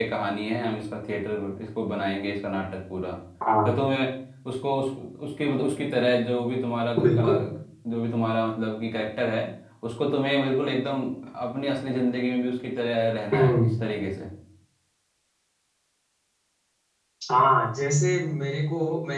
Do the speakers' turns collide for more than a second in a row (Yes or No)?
No